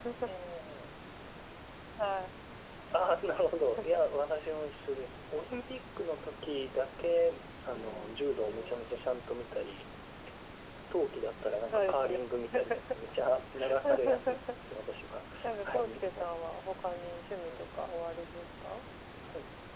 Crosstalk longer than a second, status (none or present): present